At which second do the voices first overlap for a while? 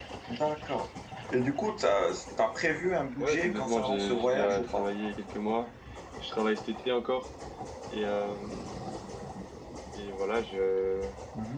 3.2 s

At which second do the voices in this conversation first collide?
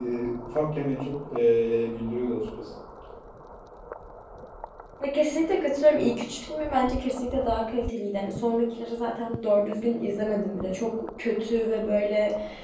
none

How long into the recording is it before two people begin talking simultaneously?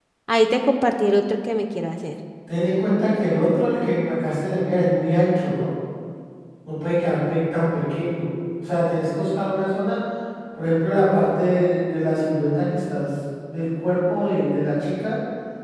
none

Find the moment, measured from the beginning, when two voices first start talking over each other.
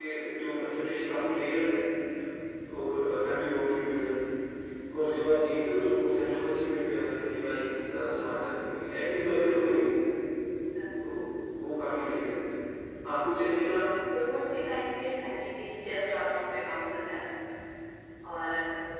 none

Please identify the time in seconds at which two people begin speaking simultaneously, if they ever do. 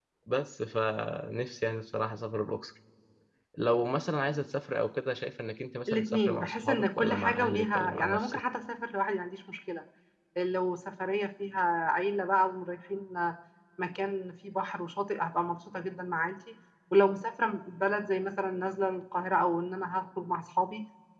5.9 s

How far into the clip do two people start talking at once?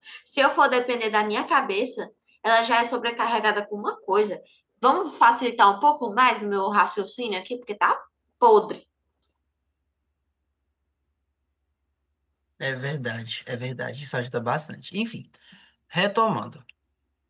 none

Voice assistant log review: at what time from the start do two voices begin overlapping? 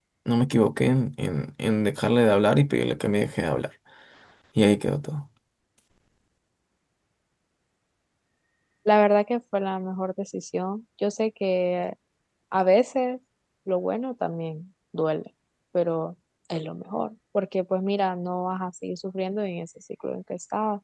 none

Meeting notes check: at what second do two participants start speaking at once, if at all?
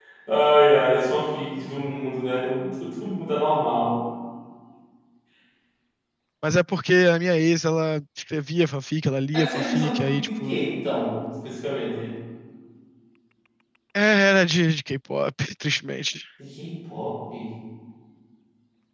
9.3 s

